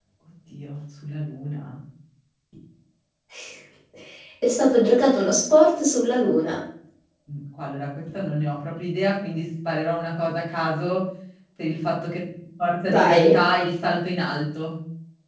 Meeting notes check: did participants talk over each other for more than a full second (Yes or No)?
No